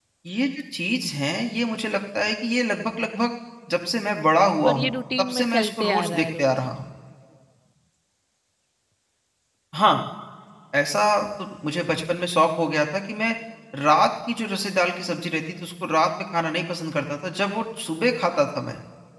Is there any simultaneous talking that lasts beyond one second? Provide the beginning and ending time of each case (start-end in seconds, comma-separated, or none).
4.7-6.5